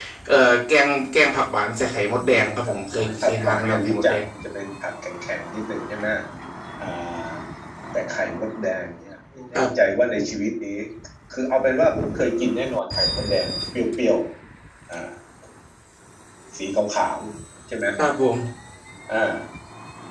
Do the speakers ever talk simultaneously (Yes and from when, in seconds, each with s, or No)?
Yes, from 2.3 s